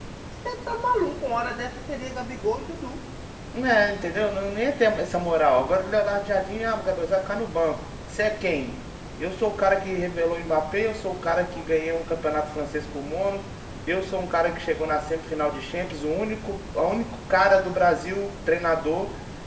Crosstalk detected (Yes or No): No